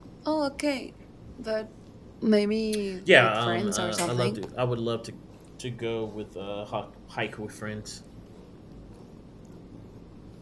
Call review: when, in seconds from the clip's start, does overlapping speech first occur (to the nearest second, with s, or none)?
3 s